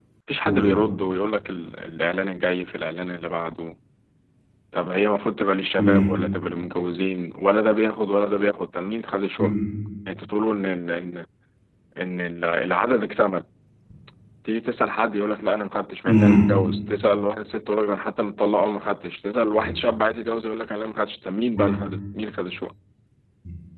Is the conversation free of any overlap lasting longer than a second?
Yes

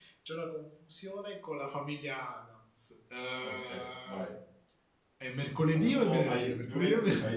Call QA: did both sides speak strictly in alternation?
No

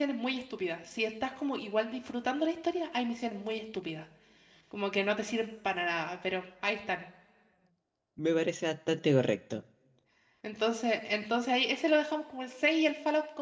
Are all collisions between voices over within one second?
Yes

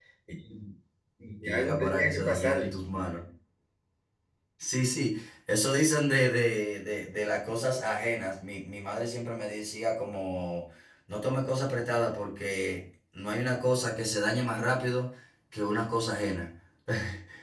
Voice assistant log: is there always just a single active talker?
No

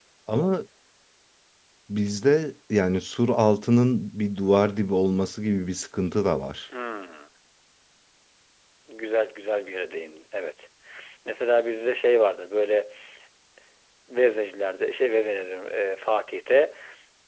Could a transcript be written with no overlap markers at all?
Yes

